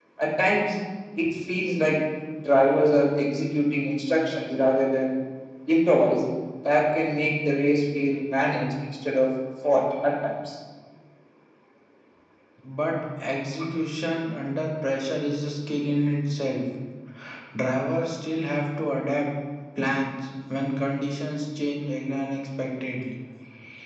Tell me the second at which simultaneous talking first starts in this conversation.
none

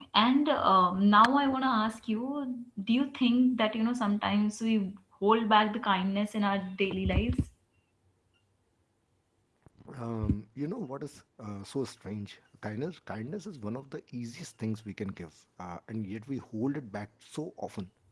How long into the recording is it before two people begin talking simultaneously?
none

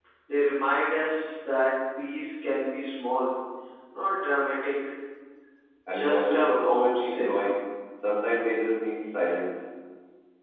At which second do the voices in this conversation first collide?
5.9 s

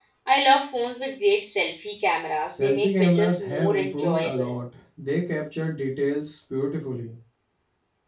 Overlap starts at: 2.6 s

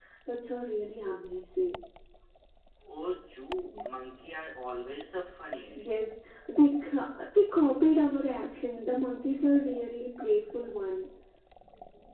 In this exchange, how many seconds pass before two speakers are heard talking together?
none

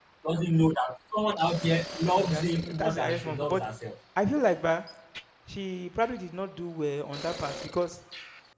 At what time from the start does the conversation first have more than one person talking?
2.2 s

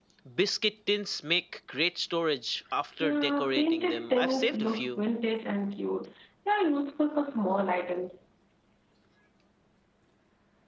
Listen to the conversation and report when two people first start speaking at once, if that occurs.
3.0 s

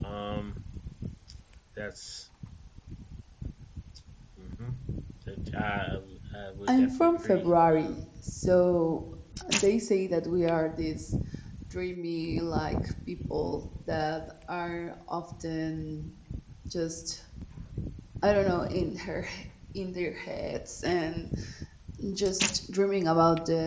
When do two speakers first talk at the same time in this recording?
6.7 s

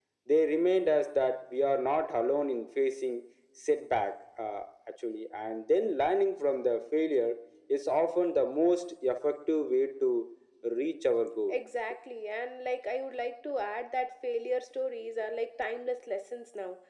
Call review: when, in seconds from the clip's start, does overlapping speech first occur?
none

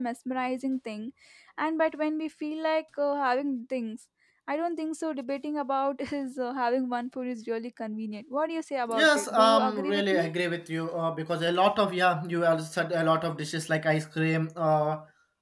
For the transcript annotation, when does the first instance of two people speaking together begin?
8.9 s

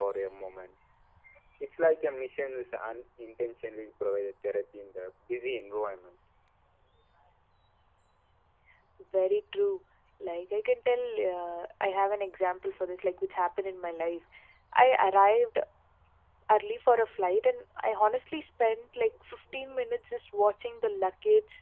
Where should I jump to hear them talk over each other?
none

